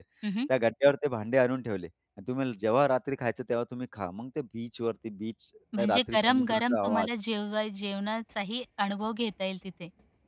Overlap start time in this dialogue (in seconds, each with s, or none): 5.7 s